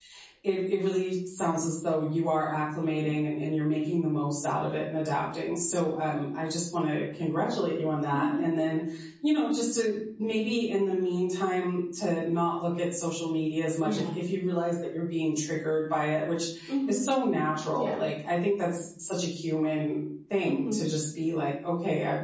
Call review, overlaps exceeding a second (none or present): none